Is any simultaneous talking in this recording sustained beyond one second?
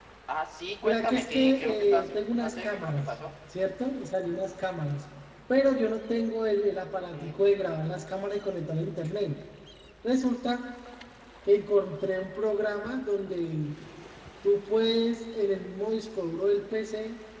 Yes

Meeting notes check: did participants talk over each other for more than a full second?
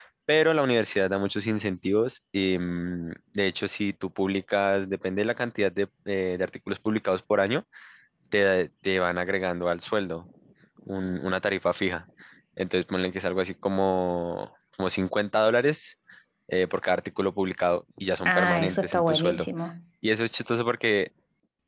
Yes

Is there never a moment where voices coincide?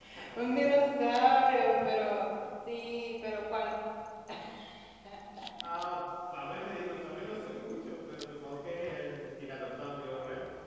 No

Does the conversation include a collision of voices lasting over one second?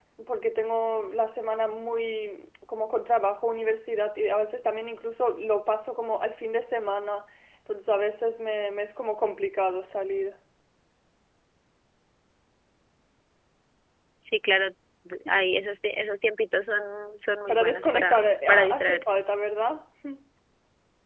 Yes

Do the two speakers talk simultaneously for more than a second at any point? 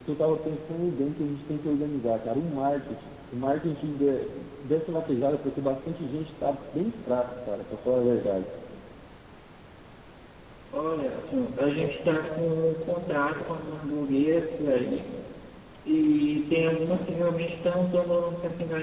No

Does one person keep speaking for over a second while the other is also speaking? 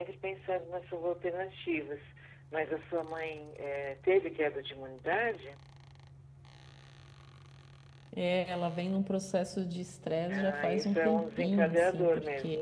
Yes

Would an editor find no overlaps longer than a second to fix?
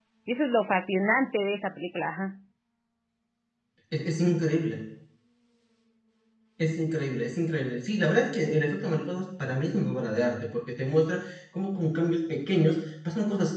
Yes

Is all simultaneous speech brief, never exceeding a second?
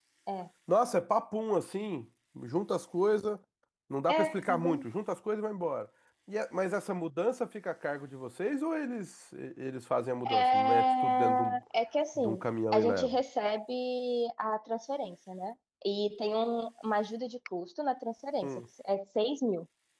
No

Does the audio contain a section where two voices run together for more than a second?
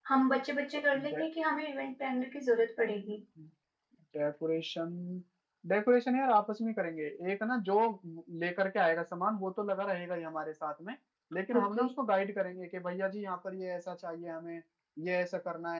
No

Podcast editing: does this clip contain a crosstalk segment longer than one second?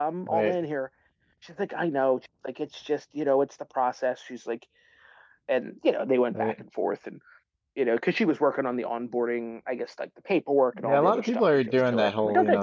Yes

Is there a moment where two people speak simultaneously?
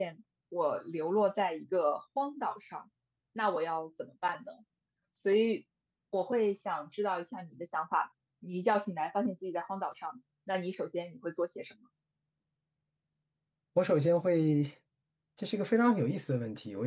No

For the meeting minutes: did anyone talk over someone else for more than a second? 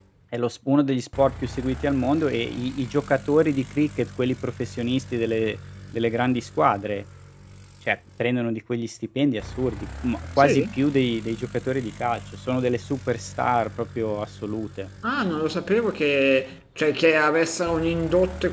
No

